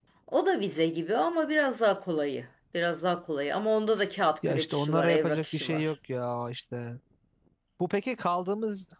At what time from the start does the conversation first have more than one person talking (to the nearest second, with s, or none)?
4 s